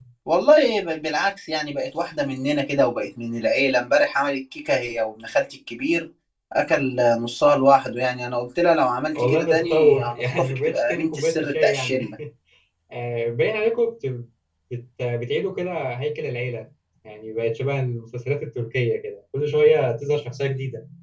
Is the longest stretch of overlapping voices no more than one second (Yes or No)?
No